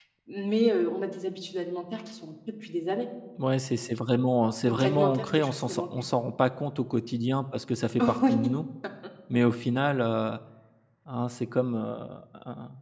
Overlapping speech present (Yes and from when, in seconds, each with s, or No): Yes, from 4.6 s